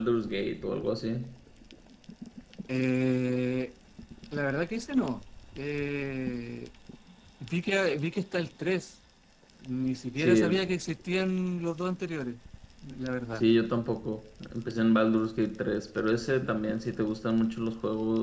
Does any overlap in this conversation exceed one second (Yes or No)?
No